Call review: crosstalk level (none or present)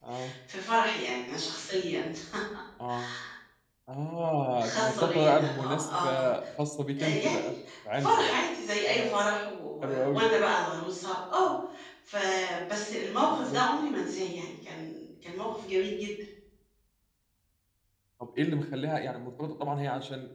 present